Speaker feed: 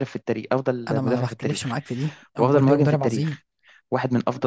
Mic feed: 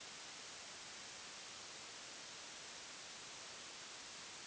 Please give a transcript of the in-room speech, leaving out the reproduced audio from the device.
none

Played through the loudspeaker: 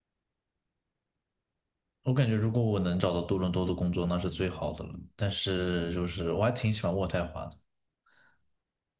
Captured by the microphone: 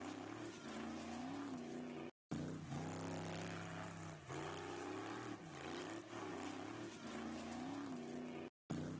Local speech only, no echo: none

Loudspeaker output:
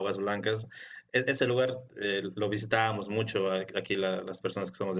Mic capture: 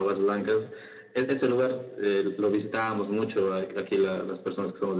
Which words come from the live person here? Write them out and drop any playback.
none

